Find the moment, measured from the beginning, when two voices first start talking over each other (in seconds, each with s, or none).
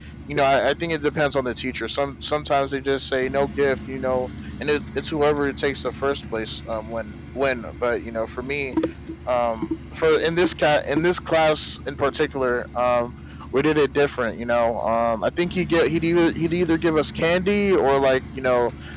none